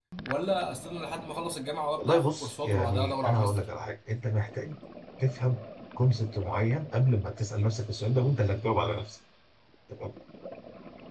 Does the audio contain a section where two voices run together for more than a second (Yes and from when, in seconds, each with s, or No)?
Yes, from 2.0 s